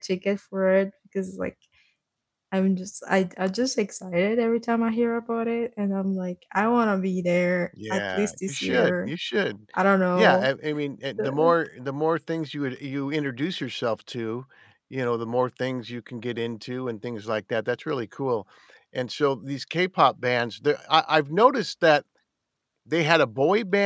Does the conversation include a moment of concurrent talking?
Yes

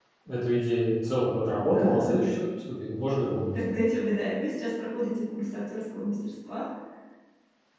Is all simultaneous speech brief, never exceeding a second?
Yes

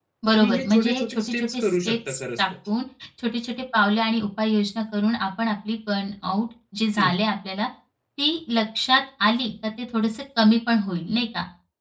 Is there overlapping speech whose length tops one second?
Yes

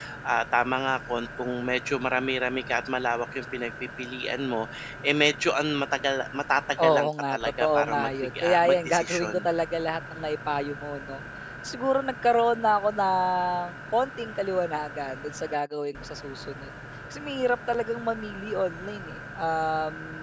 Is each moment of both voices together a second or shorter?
No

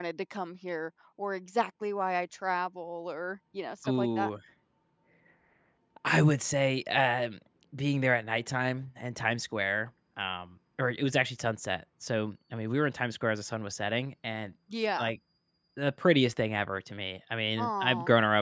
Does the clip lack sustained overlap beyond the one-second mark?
Yes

